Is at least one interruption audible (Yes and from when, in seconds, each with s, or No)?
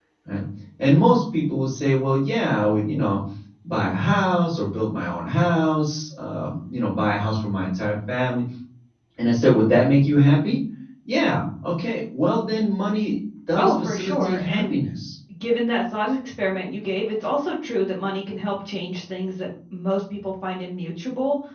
Yes, from 13.6 s